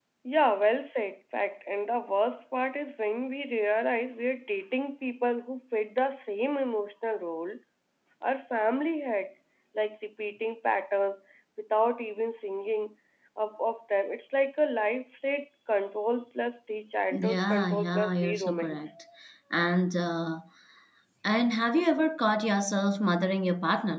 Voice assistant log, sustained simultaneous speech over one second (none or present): present